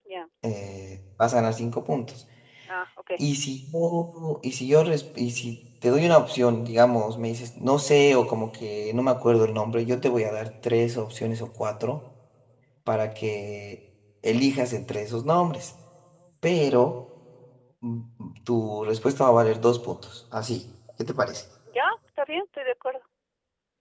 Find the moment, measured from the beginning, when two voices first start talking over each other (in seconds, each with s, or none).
none